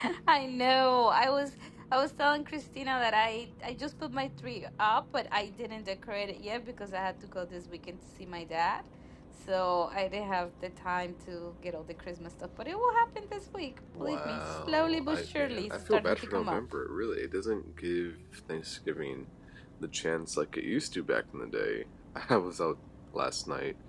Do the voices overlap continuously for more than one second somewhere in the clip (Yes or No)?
Yes